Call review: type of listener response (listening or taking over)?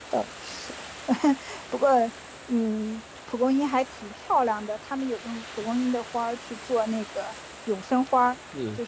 listening